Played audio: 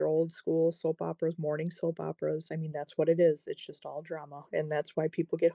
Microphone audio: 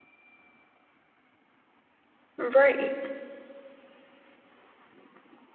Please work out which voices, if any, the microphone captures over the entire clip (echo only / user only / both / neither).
user only